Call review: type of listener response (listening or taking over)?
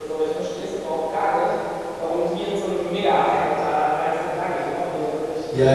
taking over